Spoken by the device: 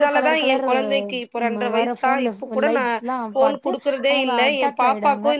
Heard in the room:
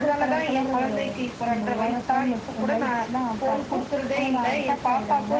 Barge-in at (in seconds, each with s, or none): none